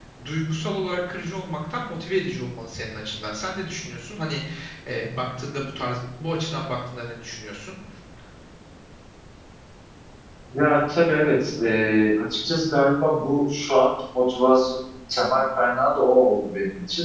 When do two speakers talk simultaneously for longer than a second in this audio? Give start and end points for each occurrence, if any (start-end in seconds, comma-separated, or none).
none